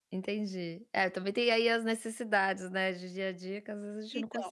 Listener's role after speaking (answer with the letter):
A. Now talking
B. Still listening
A